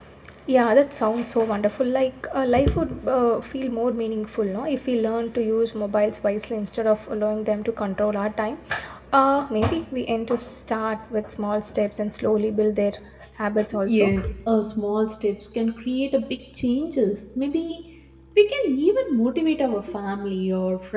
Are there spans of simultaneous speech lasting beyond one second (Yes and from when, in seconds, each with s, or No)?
No